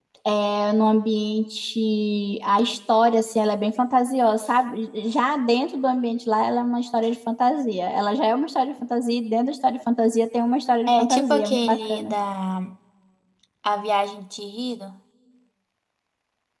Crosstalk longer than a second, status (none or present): present